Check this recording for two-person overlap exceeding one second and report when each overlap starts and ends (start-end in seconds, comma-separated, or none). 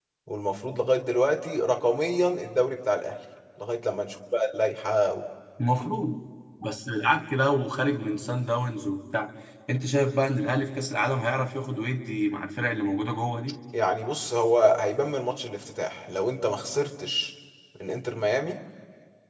none